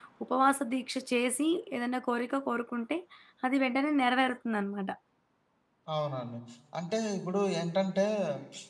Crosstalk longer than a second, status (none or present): none